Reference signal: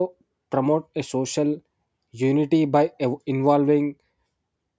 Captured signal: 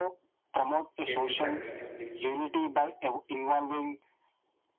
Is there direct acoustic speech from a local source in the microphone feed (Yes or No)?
Yes